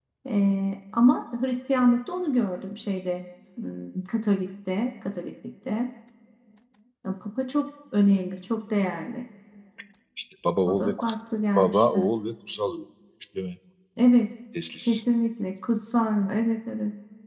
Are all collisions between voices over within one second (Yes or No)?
Yes